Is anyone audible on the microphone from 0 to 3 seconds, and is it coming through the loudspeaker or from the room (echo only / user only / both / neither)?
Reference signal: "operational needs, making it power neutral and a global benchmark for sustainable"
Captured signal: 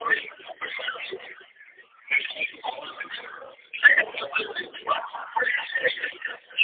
echo only